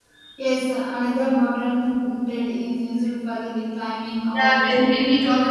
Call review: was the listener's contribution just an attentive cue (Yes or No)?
No